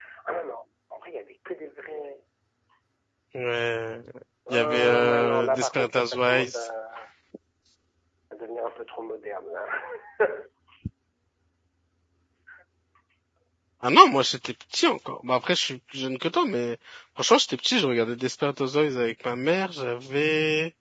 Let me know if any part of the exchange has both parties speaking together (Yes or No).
Yes